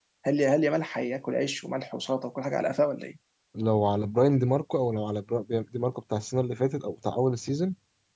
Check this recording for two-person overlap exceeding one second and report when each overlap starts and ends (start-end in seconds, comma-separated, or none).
none